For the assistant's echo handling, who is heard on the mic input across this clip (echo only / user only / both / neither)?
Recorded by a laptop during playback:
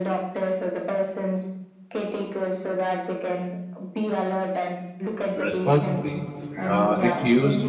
both